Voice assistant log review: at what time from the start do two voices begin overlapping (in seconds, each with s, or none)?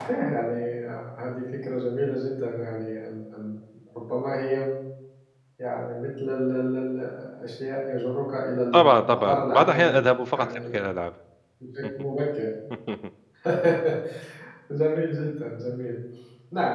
8.7 s